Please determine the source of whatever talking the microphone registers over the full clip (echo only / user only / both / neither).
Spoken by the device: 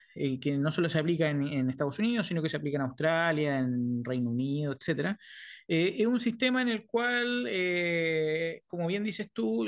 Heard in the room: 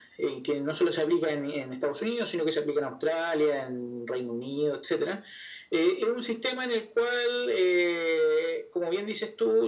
echo only